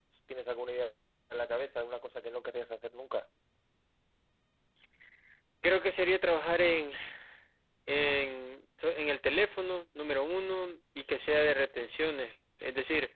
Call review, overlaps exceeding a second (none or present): none